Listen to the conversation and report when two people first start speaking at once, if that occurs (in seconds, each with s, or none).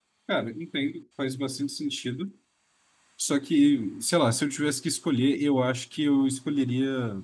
none